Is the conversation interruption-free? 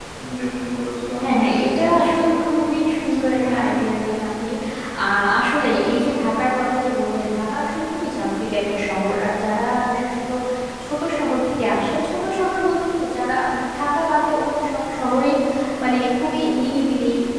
No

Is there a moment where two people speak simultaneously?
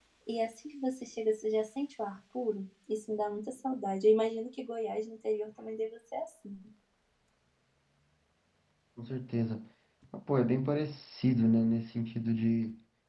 No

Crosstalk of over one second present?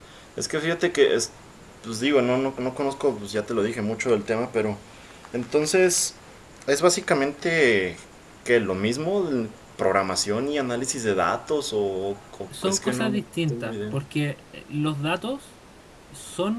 Yes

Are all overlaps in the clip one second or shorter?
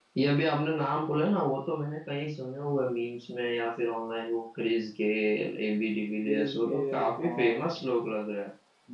No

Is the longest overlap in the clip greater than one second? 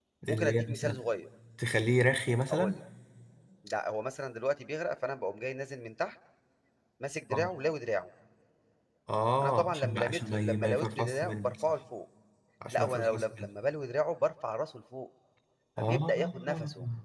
Yes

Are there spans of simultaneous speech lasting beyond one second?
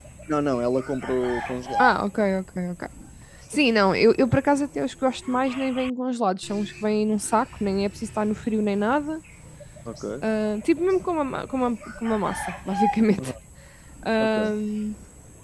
No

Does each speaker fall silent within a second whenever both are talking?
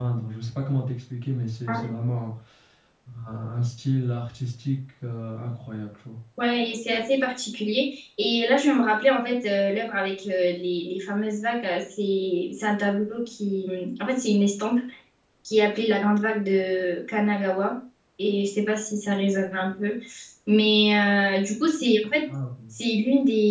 Yes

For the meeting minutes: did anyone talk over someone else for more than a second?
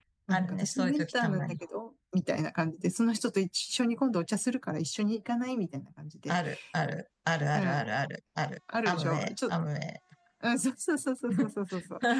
Yes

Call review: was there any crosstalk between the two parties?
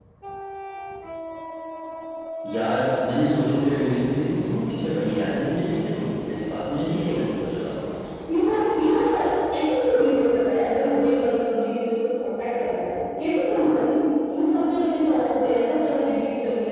No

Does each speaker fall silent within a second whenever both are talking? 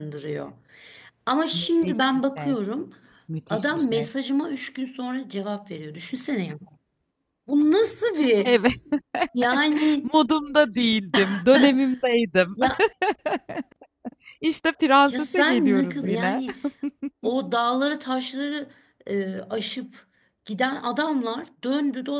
No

